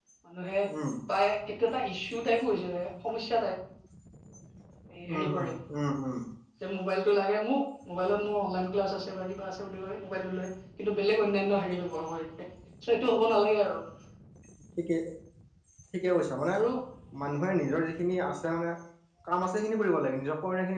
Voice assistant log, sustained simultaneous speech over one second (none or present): none